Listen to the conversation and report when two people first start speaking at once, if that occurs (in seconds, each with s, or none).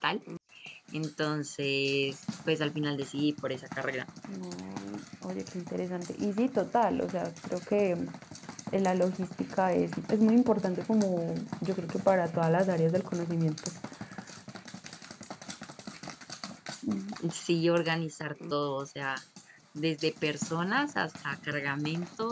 none